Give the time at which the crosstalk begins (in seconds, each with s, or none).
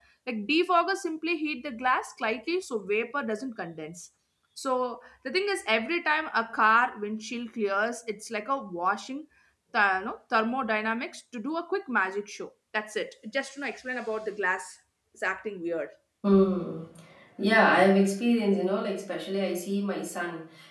none